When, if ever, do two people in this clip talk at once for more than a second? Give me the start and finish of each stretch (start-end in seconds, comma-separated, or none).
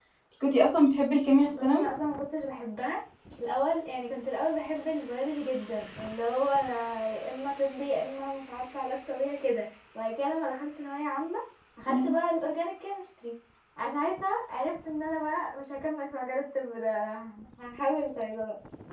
none